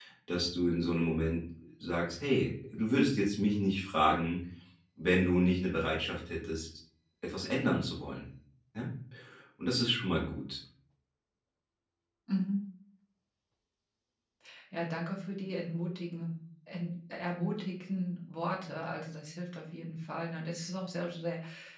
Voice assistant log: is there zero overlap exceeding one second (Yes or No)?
Yes